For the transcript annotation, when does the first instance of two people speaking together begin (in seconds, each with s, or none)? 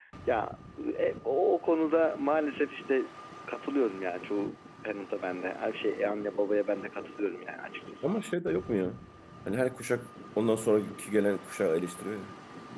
none